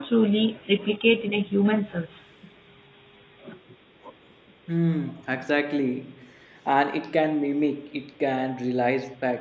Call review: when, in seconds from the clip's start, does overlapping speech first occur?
none

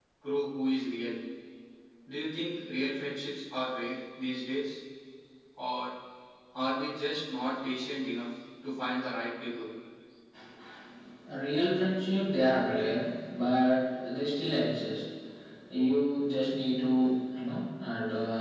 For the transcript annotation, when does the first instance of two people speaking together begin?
none

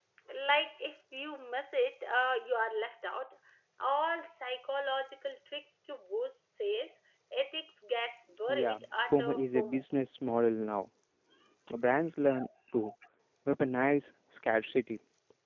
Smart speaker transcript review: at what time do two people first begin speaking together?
8.5 s

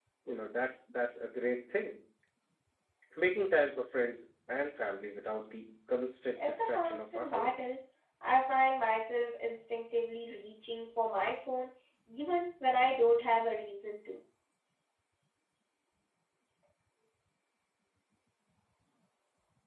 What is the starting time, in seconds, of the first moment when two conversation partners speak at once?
6.4 s

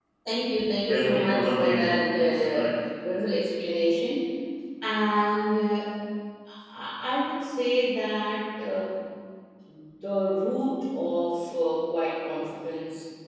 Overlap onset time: 0.9 s

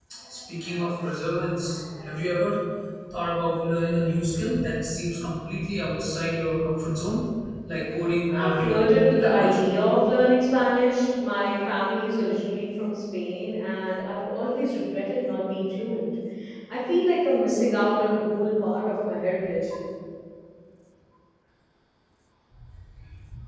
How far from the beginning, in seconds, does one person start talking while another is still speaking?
8.3 s

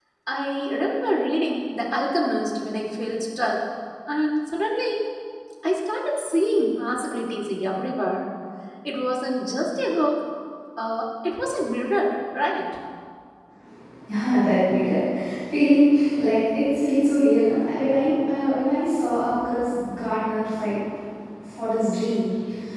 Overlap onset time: none

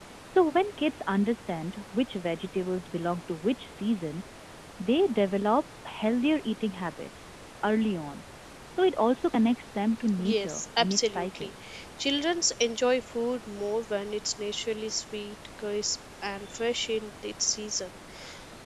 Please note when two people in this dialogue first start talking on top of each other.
10.2 s

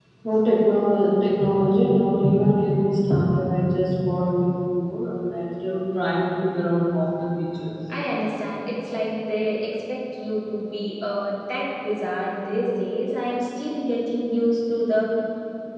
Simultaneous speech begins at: none

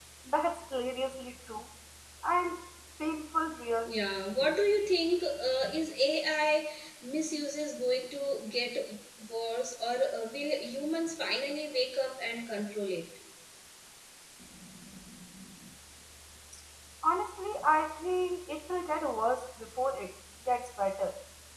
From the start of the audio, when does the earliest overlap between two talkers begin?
none

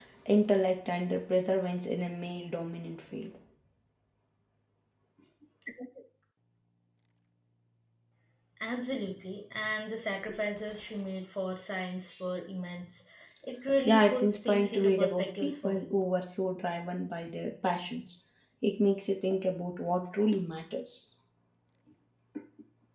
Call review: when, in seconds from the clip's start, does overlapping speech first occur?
13.8 s

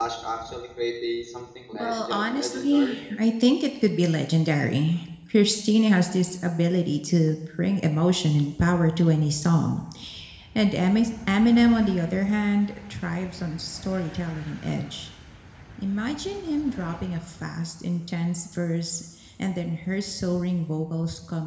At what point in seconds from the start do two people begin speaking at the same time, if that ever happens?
1.7 s

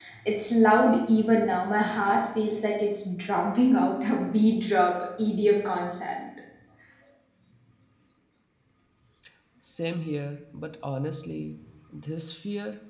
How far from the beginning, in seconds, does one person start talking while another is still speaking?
none

